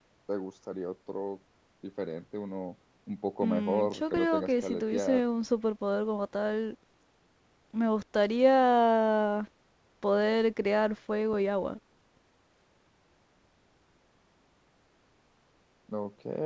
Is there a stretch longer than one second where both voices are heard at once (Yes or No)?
Yes